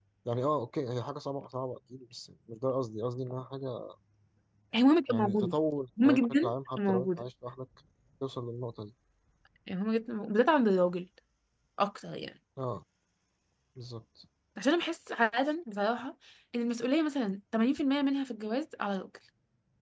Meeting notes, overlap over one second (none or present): present